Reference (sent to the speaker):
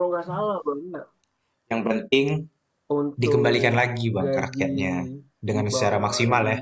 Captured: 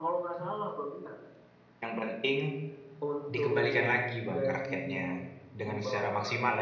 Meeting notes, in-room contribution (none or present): none